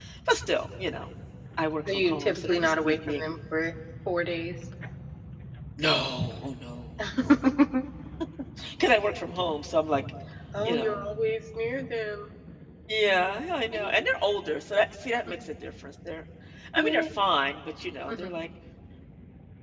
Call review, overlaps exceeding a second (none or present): present